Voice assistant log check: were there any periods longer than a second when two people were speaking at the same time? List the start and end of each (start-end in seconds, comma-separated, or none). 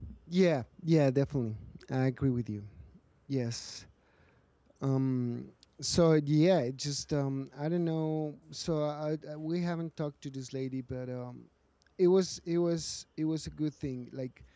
none